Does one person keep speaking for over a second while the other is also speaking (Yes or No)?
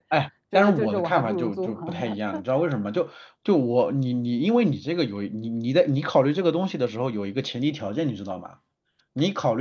Yes